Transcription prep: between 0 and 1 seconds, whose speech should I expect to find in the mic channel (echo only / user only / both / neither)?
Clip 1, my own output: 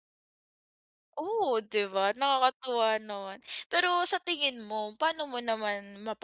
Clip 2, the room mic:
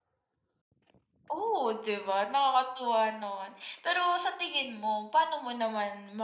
neither